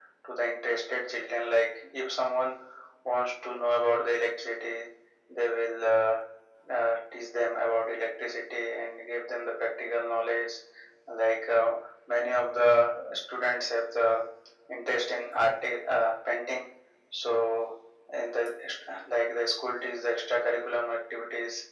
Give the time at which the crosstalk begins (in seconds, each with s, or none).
none